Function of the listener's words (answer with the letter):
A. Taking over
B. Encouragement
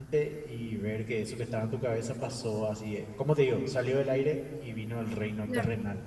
A